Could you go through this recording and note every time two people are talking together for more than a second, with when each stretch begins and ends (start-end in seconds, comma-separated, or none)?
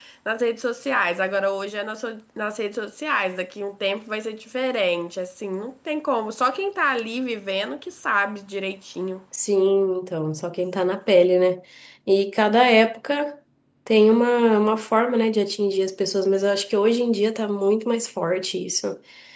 none